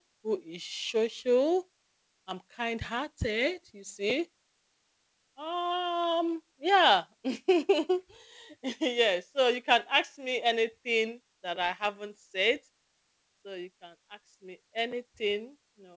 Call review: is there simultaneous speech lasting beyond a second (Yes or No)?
No